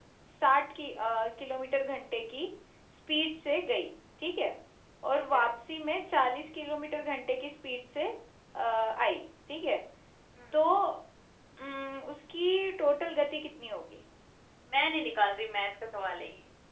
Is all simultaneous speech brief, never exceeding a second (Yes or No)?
Yes